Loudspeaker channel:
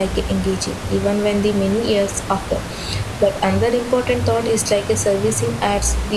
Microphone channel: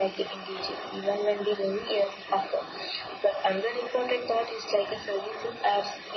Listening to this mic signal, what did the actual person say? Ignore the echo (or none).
none